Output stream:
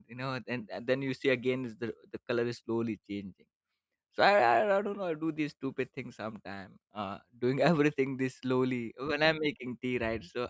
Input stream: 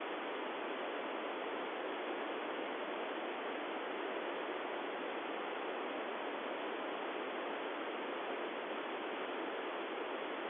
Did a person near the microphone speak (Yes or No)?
No